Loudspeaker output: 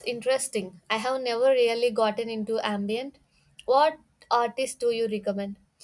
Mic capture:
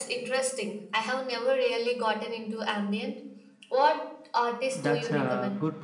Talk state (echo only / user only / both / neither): both